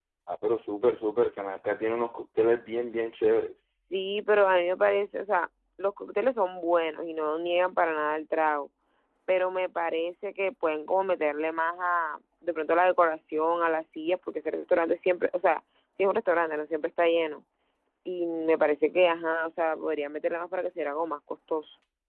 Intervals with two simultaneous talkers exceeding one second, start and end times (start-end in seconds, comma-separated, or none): none